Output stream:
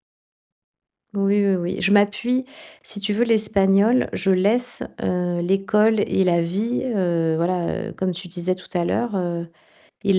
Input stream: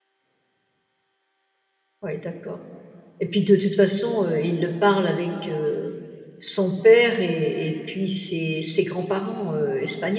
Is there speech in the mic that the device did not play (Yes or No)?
Yes